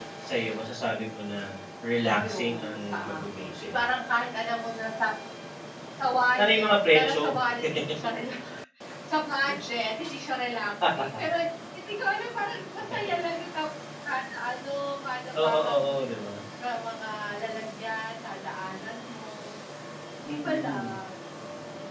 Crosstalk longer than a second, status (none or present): present